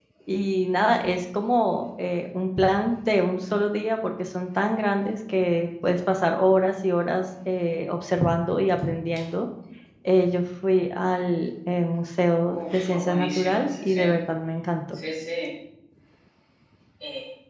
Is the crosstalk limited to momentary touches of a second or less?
No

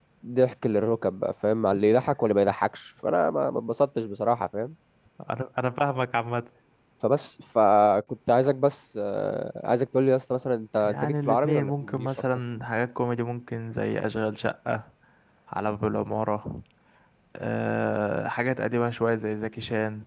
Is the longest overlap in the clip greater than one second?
Yes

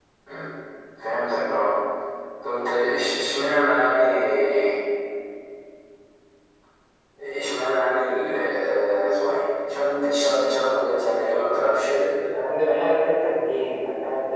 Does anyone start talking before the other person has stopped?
No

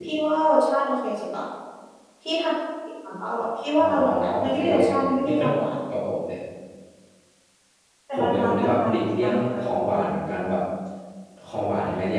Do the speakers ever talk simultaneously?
Yes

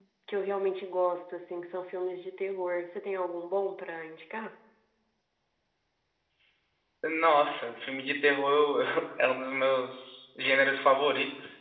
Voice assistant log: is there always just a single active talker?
Yes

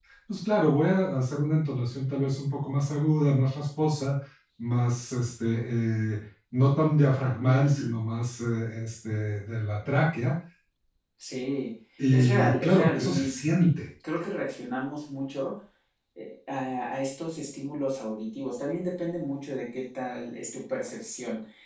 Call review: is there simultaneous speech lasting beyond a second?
Yes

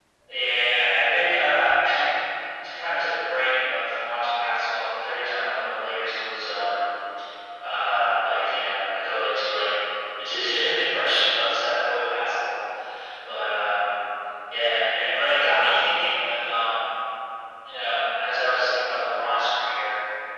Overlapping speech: No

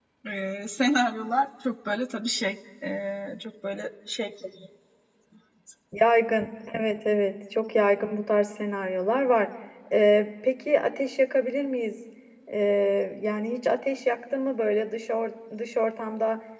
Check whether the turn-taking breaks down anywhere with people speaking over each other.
No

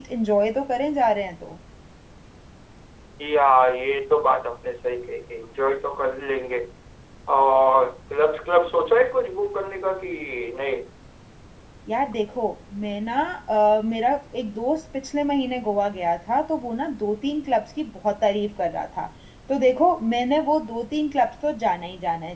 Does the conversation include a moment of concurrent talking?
No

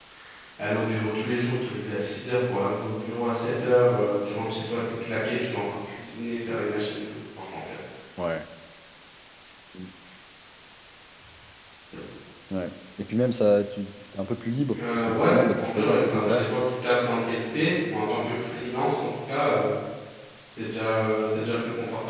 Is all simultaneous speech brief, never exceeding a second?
No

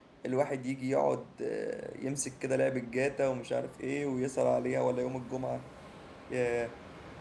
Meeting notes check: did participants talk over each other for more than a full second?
No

